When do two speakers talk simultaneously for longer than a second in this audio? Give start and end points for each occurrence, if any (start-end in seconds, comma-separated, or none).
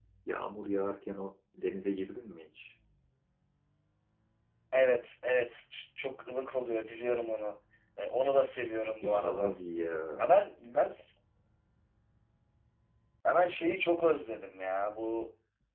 none